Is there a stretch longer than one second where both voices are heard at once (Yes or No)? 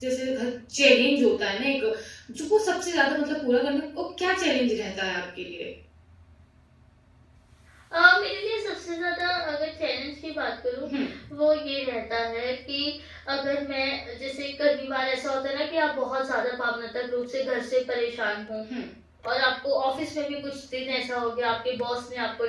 No